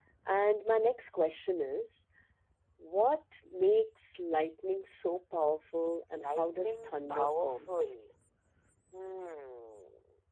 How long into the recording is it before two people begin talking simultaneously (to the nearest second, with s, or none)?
6 s